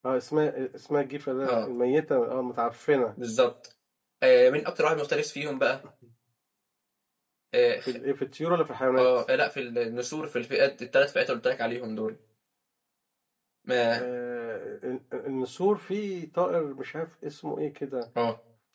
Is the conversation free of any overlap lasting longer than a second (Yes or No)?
Yes